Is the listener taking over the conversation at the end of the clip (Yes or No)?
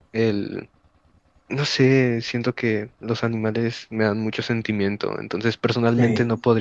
No